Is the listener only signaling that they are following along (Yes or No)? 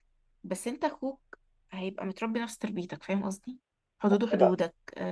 Yes